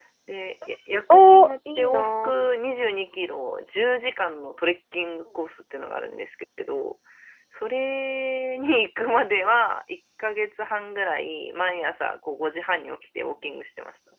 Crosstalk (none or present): present